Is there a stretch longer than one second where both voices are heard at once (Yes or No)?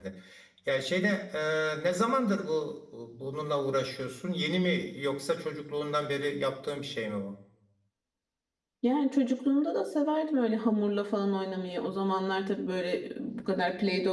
No